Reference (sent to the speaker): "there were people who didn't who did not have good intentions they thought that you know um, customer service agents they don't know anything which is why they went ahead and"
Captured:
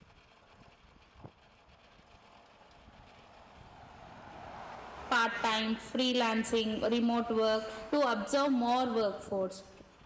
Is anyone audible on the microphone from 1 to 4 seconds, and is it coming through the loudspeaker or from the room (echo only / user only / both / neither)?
neither